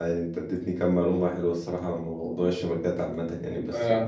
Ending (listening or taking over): listening